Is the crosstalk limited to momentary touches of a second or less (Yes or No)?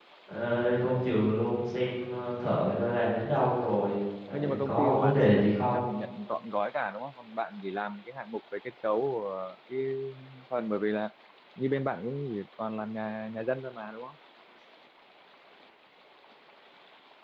No